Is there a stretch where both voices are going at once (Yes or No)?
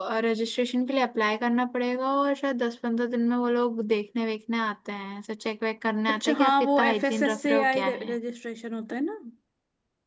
Yes